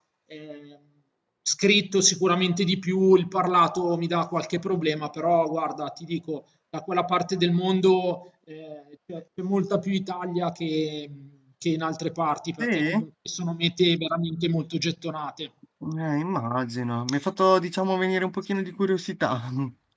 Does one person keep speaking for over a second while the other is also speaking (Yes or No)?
No